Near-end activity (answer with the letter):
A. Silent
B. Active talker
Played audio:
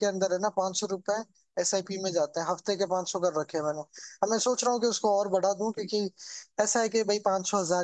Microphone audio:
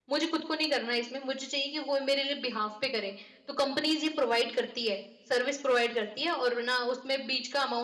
B